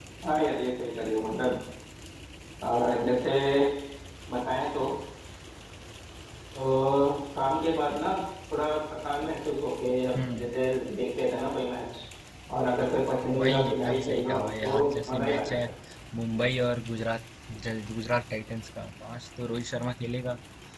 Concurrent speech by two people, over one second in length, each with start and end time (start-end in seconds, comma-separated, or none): 13.4-15.6